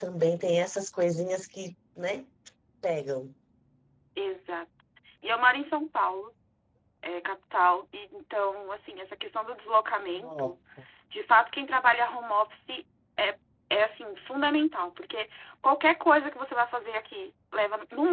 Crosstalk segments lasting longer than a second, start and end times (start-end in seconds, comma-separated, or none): none